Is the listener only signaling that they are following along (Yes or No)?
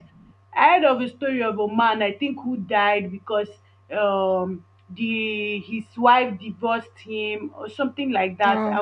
Yes